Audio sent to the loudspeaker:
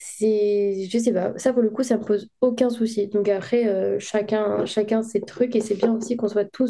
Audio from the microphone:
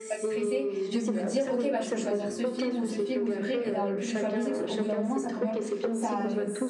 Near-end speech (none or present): present